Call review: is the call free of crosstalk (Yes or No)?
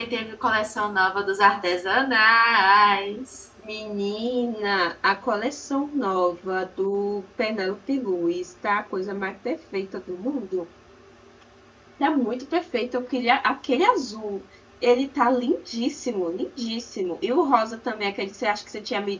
Yes